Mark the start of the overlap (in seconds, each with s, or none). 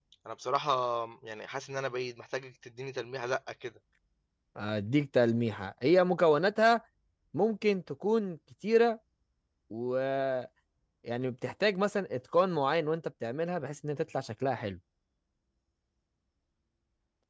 none